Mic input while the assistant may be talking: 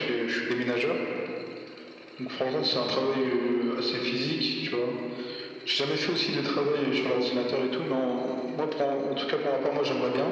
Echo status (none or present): present